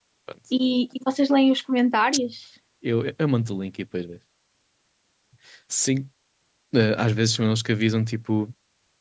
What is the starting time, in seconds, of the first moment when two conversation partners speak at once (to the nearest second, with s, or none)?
none